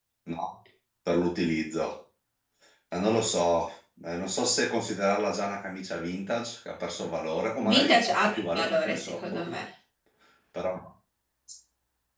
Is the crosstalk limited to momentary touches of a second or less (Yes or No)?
No